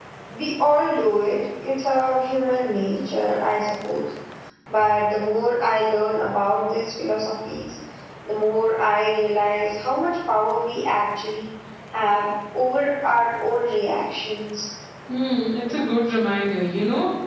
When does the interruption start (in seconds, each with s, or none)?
none